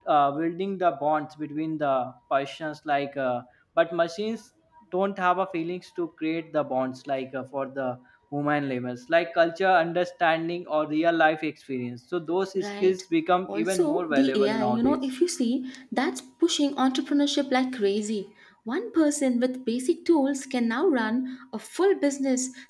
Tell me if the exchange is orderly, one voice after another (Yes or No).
No